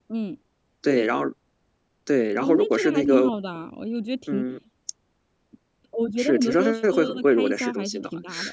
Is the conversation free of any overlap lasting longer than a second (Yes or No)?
No